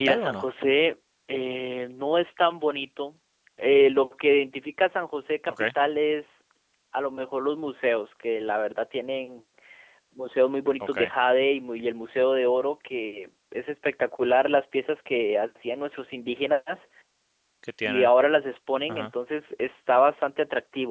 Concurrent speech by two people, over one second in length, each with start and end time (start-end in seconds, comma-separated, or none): none